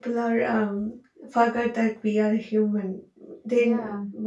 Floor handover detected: No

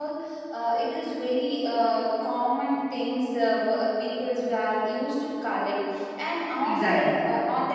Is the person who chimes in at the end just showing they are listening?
Yes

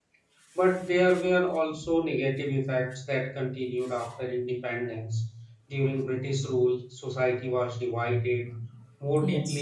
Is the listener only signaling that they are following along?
Yes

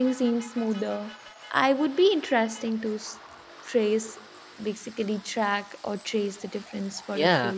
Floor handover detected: Yes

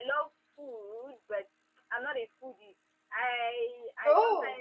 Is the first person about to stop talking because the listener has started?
No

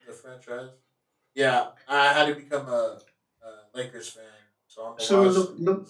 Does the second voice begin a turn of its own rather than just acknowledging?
Yes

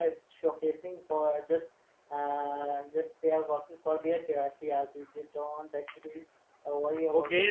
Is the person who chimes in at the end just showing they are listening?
No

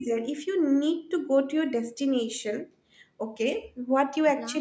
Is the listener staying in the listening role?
Yes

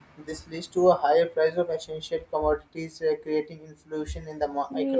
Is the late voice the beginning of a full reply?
No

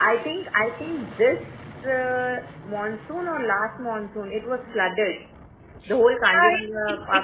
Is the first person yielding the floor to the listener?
Yes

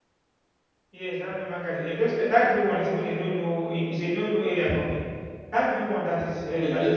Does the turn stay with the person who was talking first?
No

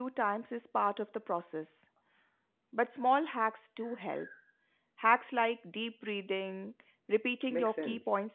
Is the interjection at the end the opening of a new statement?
No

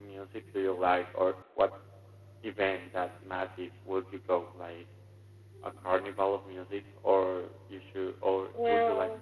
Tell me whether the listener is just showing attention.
Yes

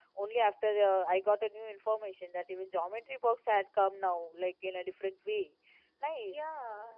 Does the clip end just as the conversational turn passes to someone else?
Yes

